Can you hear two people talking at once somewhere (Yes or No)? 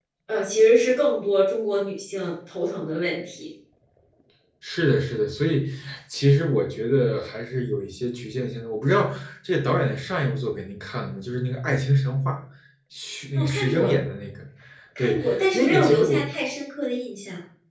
Yes